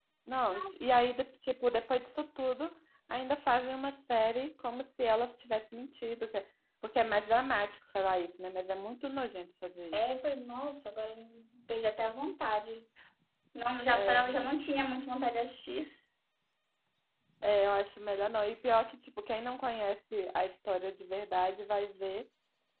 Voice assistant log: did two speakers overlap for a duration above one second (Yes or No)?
No